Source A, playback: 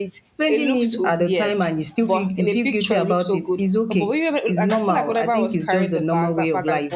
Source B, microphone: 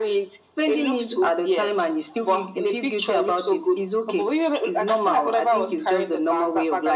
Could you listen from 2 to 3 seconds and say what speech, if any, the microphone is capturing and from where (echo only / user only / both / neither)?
echo only